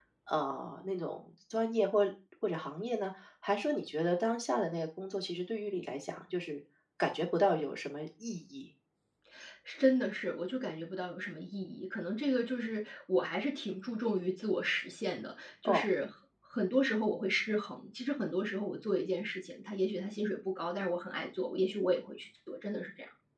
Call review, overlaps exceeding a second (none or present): none